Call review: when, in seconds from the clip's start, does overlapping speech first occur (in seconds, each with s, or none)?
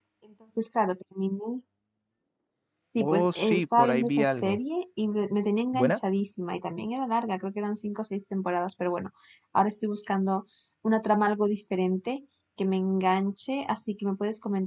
3.0 s